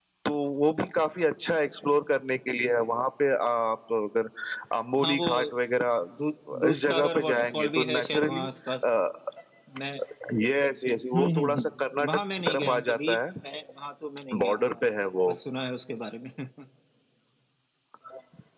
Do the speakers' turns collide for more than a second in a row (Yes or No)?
Yes